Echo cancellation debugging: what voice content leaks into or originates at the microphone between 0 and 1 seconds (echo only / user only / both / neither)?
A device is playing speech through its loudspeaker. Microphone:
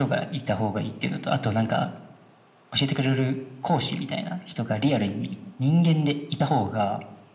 echo only